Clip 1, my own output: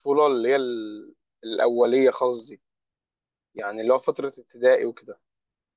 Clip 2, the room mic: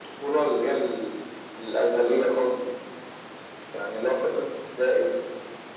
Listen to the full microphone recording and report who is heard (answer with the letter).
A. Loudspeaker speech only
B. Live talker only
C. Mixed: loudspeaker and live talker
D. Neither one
A